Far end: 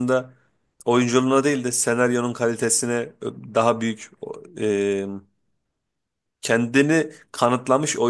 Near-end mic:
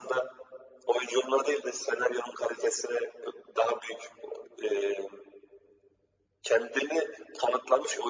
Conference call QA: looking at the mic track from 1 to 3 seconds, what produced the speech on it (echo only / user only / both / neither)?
echo only